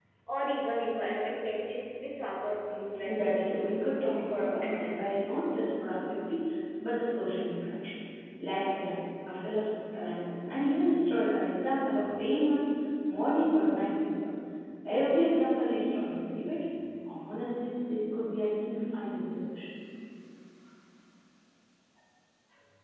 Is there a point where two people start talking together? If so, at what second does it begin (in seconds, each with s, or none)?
3.1 s